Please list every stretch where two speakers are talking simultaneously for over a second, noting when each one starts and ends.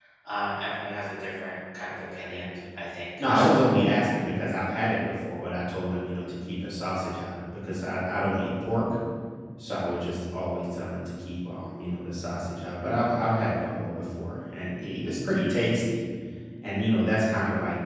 none

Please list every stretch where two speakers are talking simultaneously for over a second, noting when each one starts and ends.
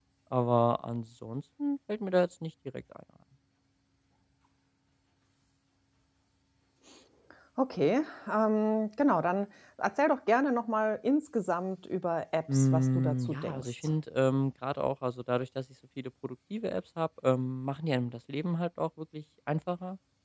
12.5-13.7

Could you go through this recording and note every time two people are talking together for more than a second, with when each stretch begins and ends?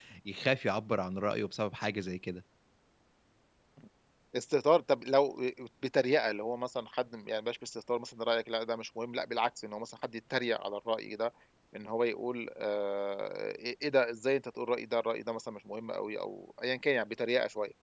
none

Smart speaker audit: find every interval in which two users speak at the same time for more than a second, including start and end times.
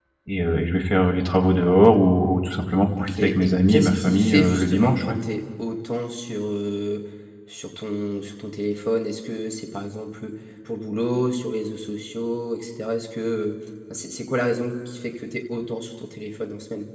3.0-5.2

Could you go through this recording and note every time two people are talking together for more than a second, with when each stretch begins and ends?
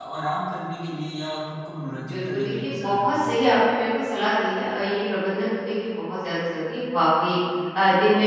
2.0-3.4

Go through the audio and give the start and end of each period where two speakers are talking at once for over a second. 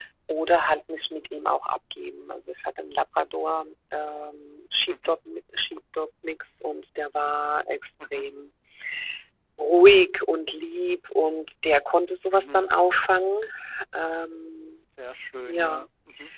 none

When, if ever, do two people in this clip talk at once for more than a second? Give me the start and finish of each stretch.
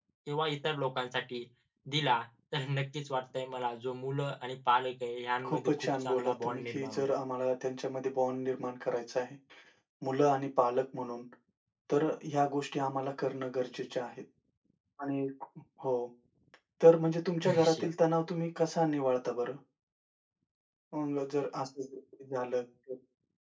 5.5-7.1

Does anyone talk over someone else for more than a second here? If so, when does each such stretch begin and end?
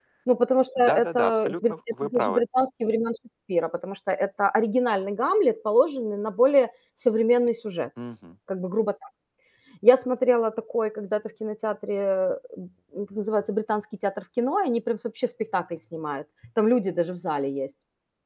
0.8-2.4

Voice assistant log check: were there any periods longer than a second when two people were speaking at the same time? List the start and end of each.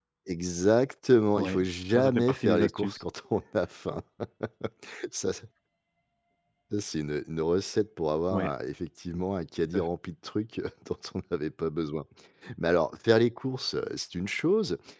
1.4-3.0

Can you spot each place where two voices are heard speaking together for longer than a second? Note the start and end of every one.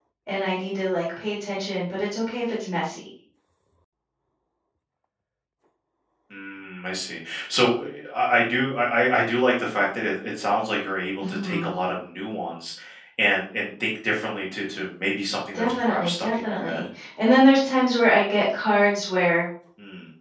15.5-16.8

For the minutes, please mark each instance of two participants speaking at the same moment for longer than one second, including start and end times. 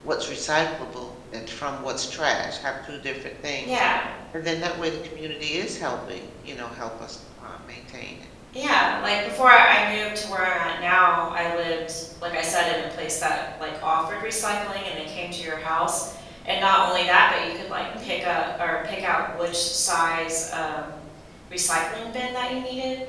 none

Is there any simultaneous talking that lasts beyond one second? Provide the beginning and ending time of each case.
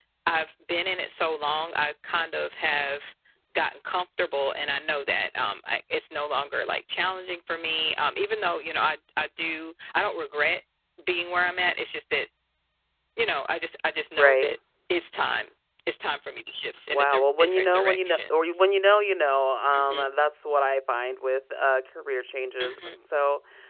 16.9-18.4

